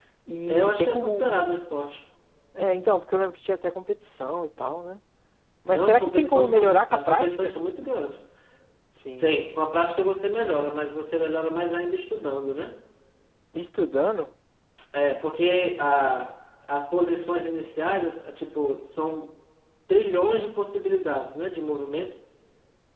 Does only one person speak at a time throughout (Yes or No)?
No